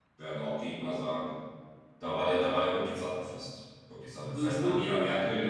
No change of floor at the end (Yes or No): Yes